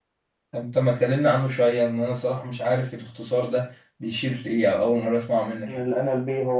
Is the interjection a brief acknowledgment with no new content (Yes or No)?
No